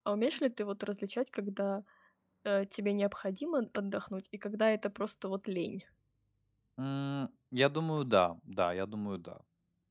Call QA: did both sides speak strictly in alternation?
Yes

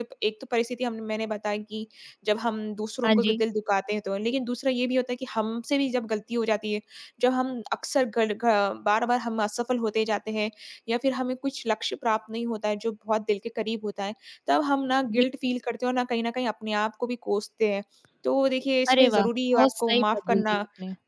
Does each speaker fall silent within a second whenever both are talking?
No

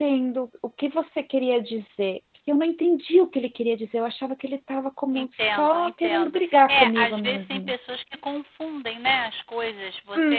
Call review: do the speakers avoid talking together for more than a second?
No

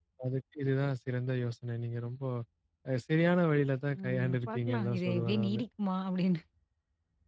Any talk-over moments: Yes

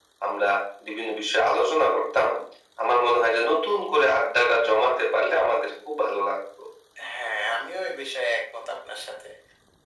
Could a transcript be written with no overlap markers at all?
Yes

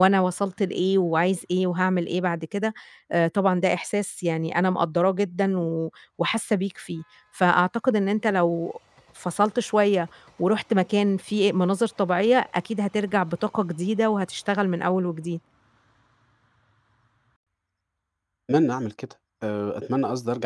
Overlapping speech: No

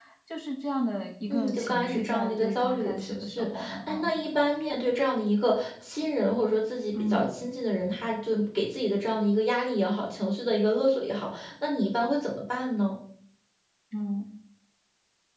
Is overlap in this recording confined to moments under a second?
No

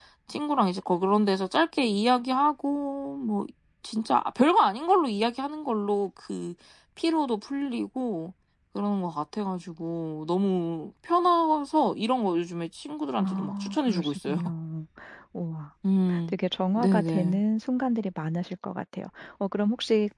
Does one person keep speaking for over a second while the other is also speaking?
Yes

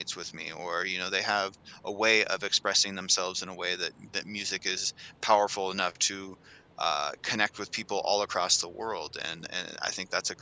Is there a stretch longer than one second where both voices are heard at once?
No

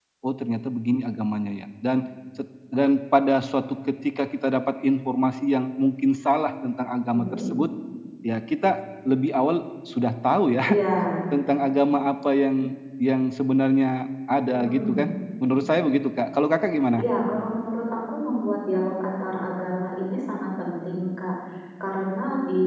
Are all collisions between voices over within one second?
Yes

